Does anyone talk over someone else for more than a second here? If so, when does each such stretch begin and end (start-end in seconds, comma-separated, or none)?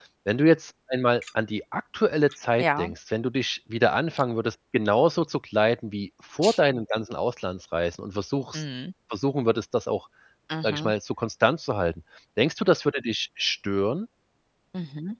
none